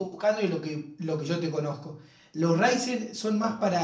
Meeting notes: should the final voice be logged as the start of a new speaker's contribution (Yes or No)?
No